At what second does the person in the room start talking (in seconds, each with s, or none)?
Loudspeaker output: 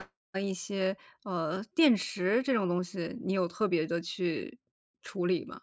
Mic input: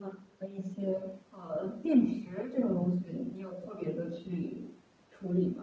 none